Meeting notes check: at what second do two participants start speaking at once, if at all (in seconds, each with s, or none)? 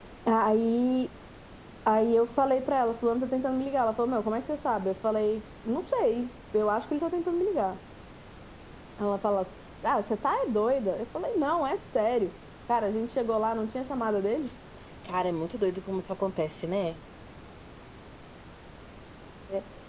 none